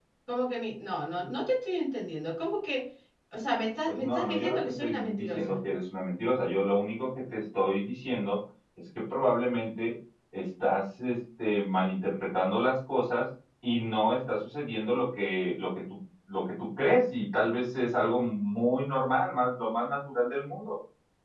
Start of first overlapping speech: 4 s

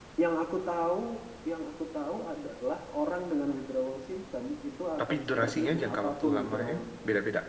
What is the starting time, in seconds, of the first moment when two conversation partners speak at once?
5 s

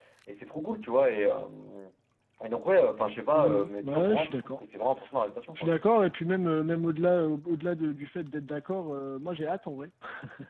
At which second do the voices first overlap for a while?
3 s

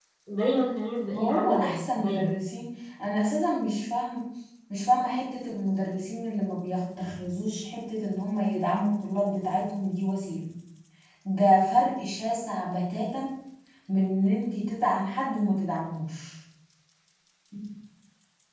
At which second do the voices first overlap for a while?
1 s

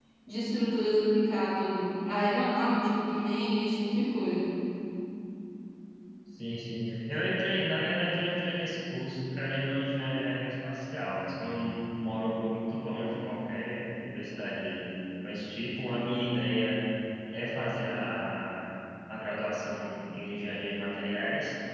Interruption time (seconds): none

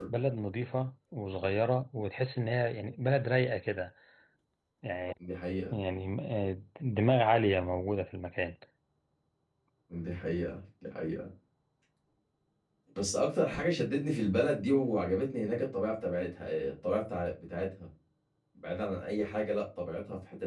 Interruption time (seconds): none

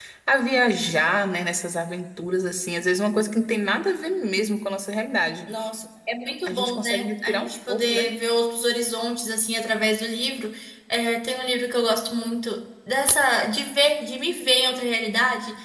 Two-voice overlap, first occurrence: 6 s

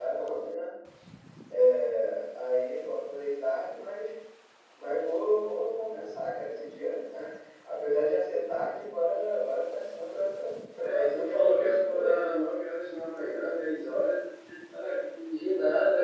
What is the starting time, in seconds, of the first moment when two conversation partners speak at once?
11 s

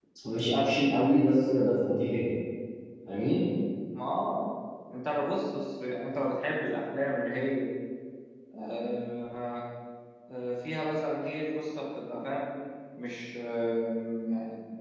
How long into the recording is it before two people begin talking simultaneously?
none

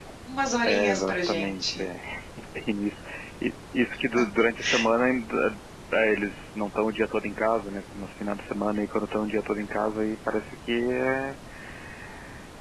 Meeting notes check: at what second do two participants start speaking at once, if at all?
1 s

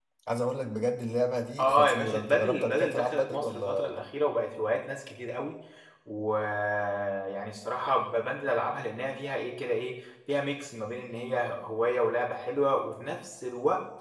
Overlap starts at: 2 s

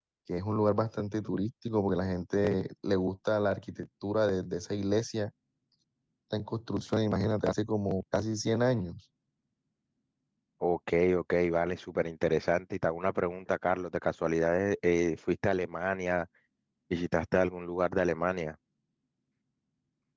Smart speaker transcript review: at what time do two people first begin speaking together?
none

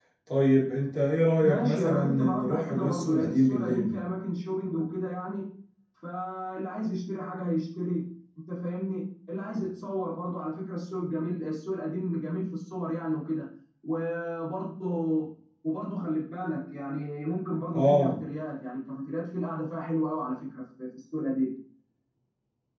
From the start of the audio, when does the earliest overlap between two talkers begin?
1 s

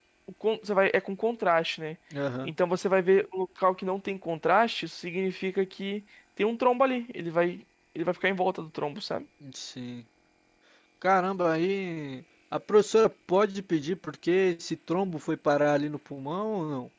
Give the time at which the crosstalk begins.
none

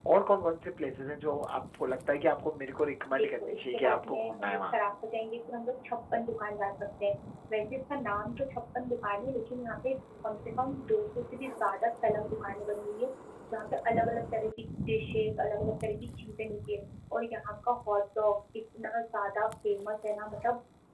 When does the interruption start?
3 s

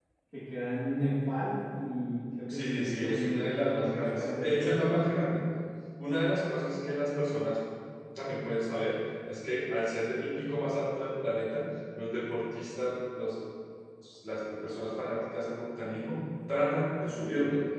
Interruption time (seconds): 2 s

